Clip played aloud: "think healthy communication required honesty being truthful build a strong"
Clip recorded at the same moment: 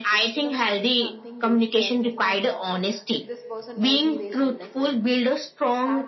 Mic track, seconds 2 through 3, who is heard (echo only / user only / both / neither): both